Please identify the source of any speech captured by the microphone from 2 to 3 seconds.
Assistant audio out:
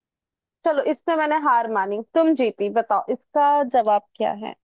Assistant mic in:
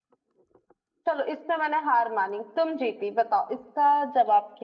echo only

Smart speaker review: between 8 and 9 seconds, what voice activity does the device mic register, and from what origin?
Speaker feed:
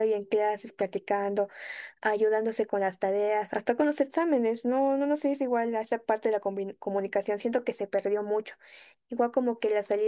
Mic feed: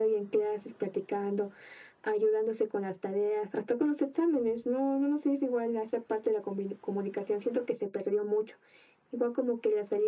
echo only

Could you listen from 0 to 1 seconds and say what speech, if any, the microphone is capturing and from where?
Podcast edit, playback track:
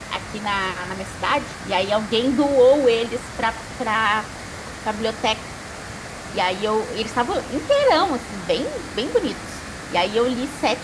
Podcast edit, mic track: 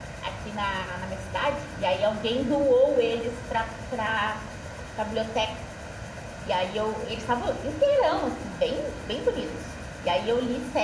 echo only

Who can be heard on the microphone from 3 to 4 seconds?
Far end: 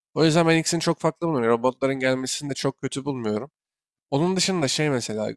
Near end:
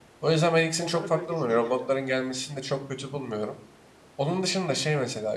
echo only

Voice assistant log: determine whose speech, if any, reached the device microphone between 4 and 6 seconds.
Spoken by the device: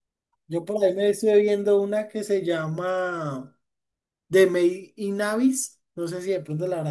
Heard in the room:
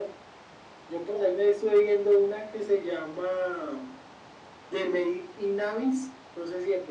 echo only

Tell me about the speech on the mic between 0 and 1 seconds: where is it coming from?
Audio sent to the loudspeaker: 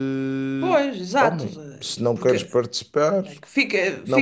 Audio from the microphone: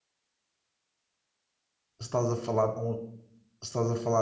neither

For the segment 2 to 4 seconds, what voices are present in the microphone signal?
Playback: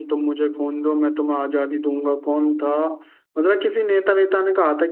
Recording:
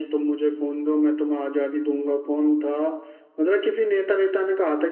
echo only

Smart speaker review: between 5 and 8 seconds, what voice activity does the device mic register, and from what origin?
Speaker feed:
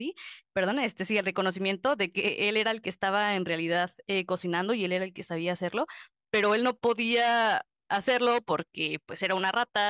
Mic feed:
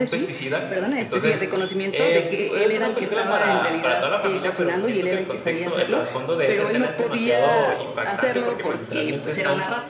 both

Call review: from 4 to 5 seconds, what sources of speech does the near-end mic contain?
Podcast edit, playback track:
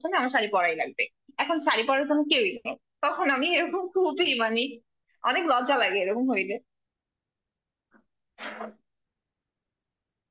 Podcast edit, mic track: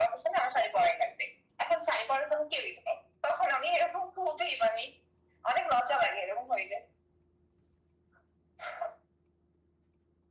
echo only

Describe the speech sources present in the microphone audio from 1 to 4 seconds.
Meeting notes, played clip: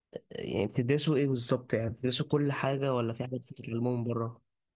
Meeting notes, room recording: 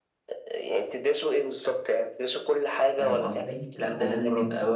both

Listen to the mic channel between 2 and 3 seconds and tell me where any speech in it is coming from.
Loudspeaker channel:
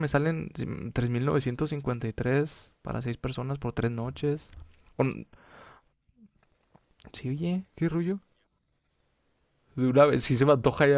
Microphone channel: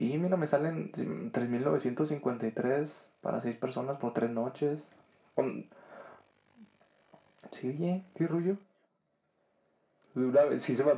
echo only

